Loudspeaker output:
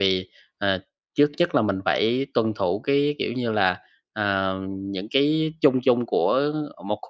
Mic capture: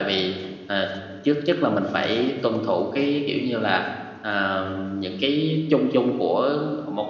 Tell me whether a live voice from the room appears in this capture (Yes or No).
No